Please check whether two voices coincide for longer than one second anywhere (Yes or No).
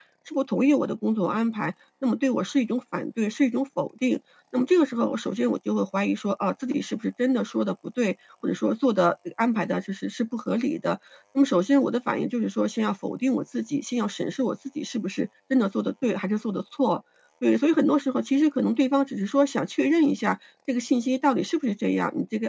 No